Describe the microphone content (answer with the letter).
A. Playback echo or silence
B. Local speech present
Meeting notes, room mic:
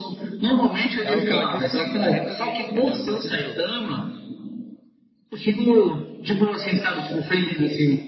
B